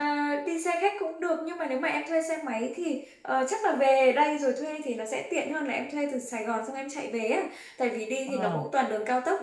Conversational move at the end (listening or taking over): listening